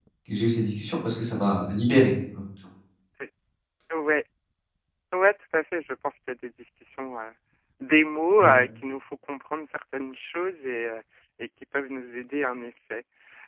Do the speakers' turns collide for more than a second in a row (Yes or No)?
No